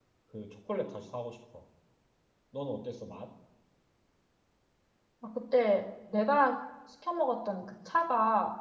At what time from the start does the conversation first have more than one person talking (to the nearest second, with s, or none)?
none